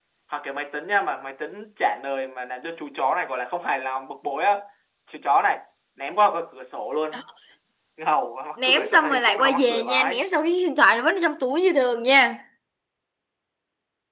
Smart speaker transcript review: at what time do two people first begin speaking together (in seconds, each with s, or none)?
8.6 s